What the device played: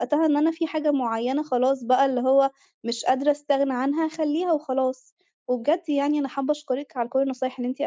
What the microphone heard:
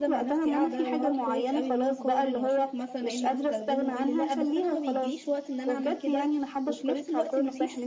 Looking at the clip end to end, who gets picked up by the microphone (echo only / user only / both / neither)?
both